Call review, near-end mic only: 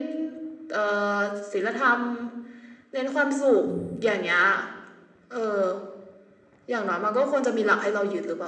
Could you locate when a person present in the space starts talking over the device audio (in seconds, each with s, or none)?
3.6 s